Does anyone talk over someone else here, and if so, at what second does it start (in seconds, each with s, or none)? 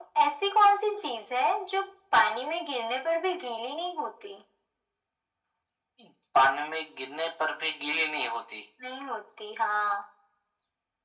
none